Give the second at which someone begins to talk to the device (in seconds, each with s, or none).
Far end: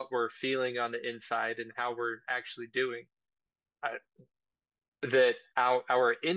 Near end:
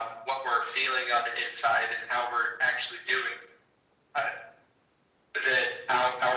none